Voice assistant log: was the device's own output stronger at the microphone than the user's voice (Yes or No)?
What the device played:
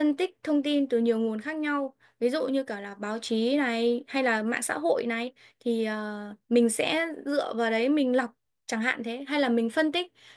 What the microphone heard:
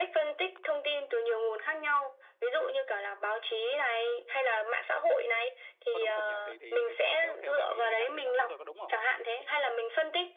Yes